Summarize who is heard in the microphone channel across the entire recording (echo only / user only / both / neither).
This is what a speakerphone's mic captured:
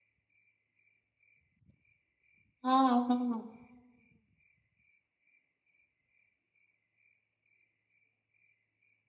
user only